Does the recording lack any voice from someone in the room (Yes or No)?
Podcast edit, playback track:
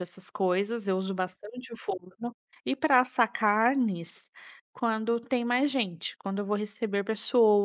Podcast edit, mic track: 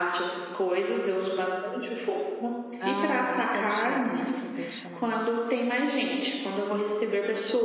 No